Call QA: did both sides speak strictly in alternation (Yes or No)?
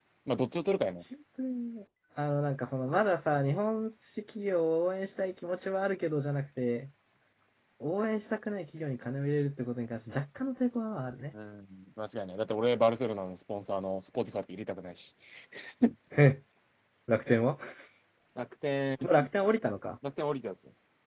Yes